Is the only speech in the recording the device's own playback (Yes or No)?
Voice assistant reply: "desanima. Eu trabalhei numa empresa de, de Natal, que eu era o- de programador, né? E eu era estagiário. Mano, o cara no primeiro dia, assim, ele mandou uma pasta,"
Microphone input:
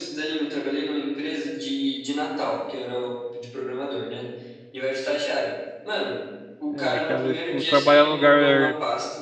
No